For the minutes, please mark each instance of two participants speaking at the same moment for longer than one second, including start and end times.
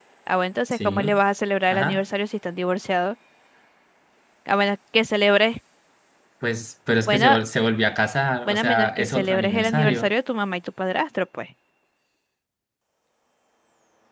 8.4-10.1

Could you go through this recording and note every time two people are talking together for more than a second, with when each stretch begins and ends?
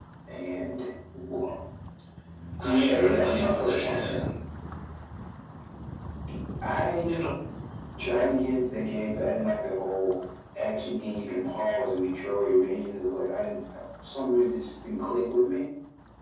2.6-4.2

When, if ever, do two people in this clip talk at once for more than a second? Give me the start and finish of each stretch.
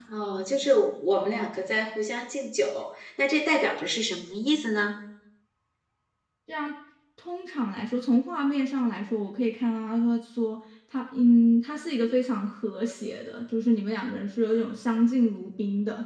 none

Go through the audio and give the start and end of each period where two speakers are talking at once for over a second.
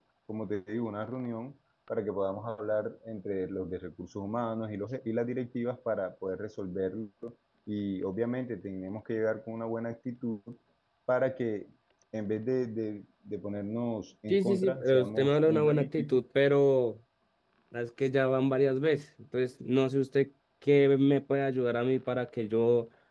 14.3-16.2

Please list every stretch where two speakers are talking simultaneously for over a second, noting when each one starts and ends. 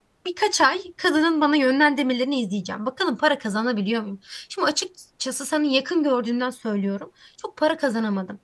none

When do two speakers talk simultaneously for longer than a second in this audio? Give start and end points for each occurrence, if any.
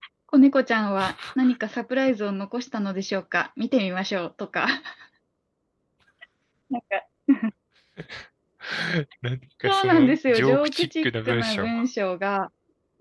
9.7-11.7

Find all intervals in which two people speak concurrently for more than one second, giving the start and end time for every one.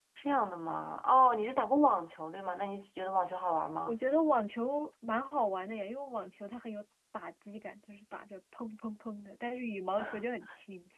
none

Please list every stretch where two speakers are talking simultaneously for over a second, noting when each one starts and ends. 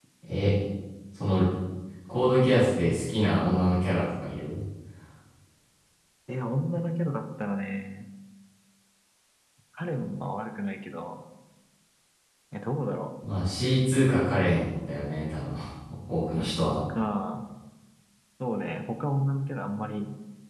none

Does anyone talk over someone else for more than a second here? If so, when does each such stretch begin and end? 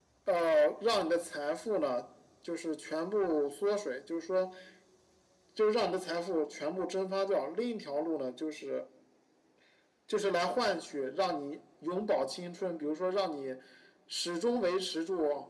none

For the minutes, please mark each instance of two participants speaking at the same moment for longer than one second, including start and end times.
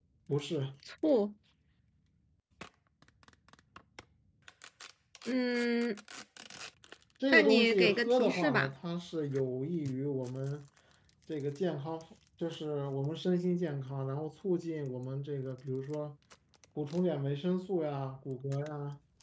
7.3-8.7

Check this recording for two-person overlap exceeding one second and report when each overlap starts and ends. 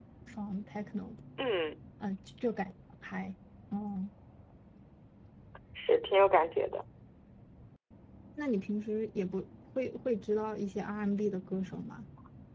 none

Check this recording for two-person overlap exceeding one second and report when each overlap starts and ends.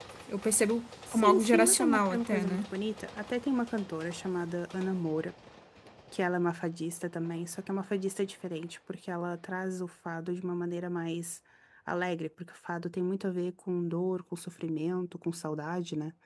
1.1-2.6

